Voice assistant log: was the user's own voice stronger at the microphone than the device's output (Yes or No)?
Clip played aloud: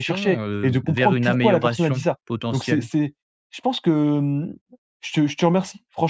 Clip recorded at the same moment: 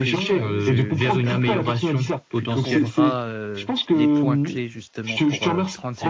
No